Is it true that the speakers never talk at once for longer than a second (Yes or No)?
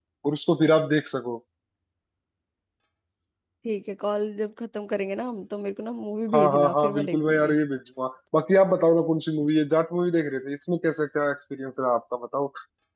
No